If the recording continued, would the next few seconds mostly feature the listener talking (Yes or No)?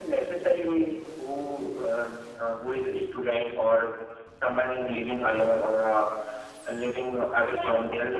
Yes